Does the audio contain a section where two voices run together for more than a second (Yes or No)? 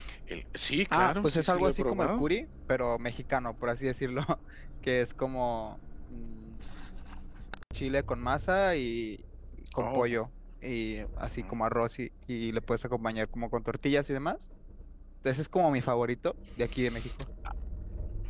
Yes